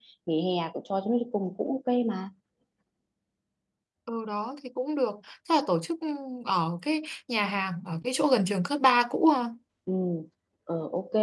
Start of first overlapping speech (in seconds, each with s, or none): none